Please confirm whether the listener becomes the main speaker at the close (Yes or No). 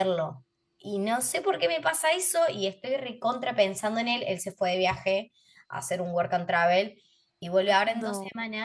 No